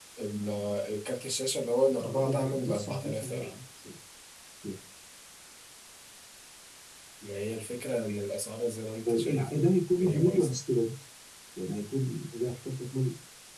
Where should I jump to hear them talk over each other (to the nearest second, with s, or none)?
2 s